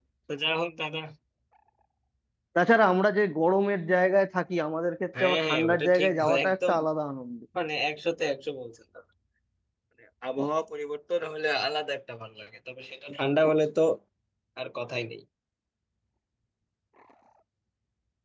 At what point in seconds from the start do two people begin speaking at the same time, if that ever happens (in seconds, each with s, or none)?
5.1 s